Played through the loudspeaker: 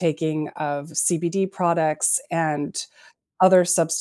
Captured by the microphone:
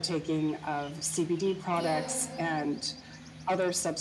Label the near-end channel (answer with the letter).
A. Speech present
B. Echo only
A